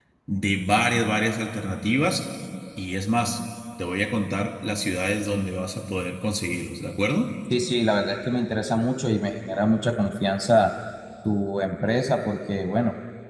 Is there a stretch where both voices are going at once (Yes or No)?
No